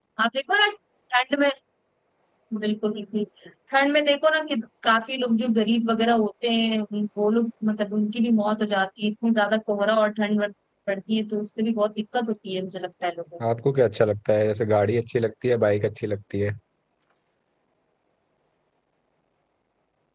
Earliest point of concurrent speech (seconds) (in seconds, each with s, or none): none